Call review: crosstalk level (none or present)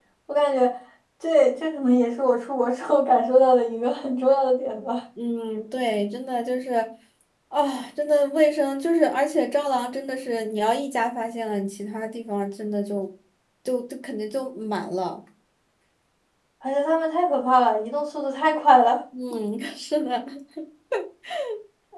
none